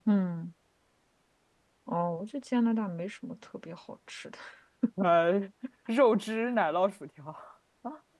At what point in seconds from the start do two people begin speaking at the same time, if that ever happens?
none

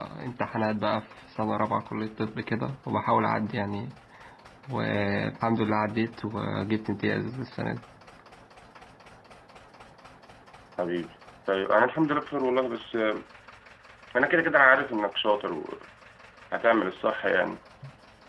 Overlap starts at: none

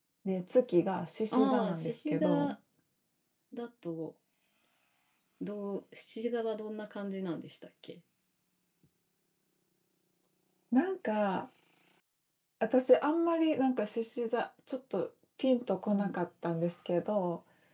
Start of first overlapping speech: 1.3 s

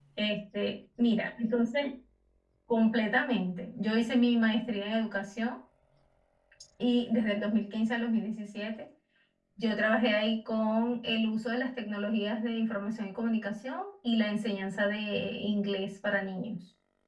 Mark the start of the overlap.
none

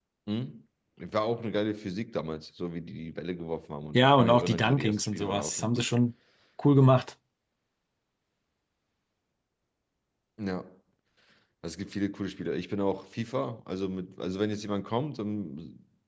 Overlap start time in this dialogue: 3.9 s

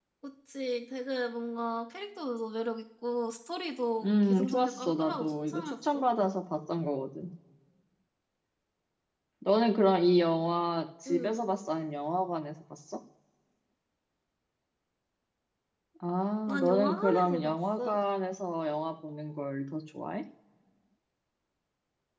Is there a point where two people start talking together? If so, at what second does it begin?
4.0 s

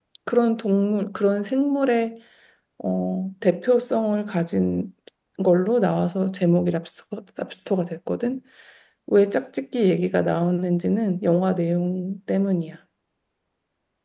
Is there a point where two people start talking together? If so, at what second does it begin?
none

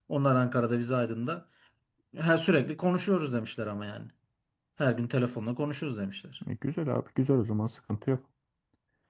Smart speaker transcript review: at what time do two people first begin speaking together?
none

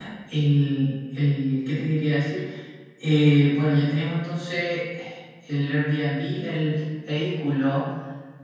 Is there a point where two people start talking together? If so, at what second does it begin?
none

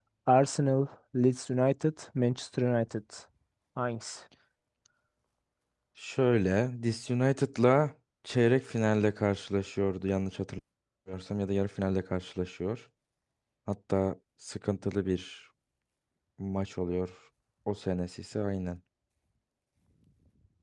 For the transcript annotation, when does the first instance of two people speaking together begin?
none

